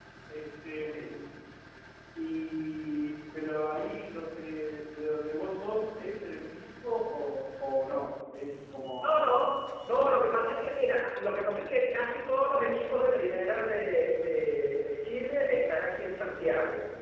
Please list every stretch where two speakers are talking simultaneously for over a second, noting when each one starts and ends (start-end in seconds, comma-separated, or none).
none